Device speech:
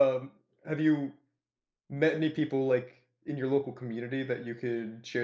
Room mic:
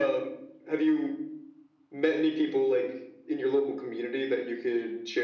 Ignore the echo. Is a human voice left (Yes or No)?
No